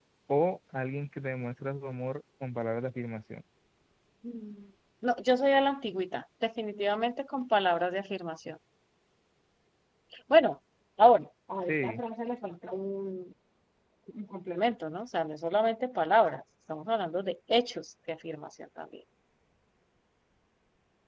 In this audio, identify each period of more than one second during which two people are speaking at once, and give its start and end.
none

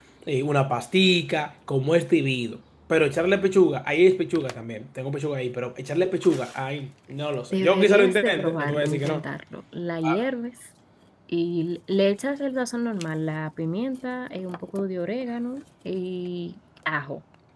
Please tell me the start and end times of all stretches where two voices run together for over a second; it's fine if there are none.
7.5-9.2

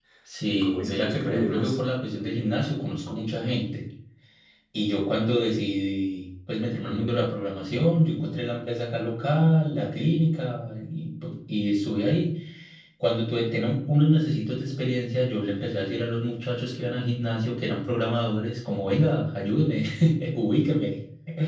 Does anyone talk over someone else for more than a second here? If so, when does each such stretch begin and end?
0.5-1.8

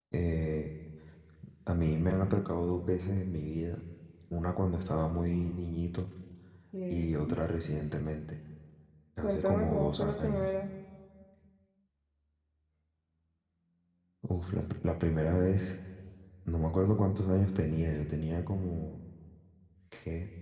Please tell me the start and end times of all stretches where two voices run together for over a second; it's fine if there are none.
9.2-10.4

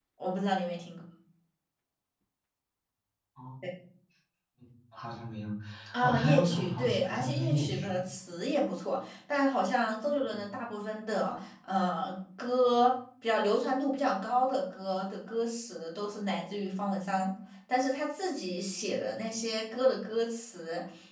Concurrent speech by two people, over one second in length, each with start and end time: 6.0-8.0

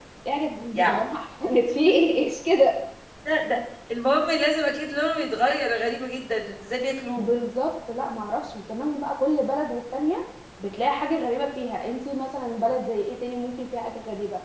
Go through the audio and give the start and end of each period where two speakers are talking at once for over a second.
none

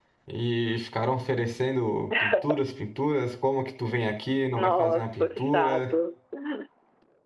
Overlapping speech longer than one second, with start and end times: 4.6-5.8

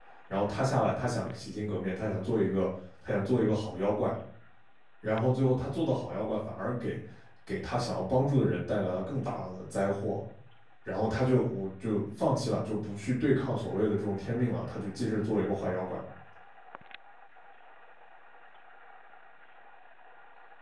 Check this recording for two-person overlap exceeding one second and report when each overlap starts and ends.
none

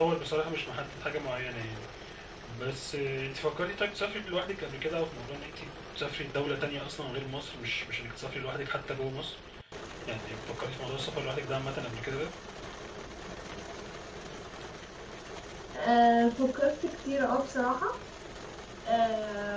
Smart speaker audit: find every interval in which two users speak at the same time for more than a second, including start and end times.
none

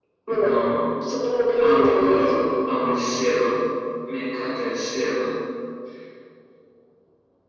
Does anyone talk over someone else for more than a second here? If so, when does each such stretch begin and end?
1.6-2.9

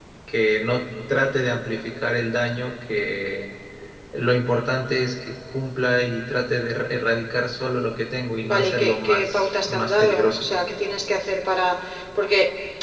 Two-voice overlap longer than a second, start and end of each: 8.4-10.5

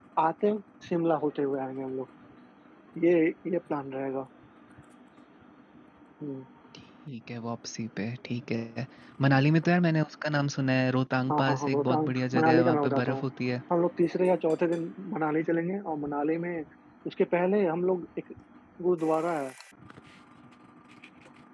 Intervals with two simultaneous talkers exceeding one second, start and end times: 11.3-13.2

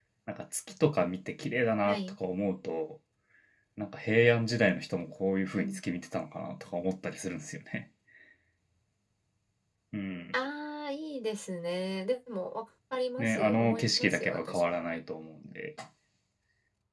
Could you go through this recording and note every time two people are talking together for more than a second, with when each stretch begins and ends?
13.2-14.8

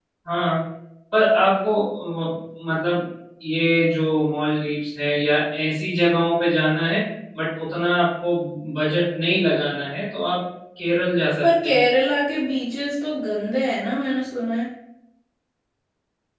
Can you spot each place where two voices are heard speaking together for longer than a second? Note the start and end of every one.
none

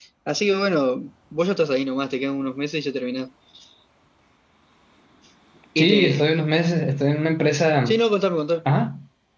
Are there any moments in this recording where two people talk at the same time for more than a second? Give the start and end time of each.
none

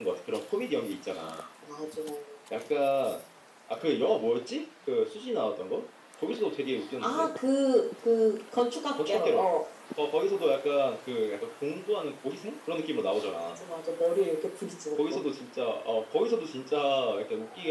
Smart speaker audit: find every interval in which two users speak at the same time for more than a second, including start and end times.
none

